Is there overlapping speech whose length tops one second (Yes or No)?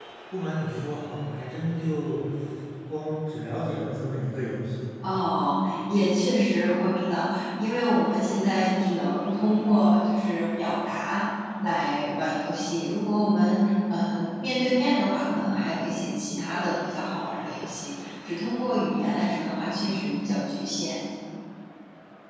No